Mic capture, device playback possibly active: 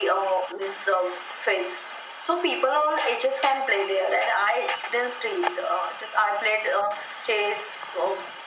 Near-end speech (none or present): none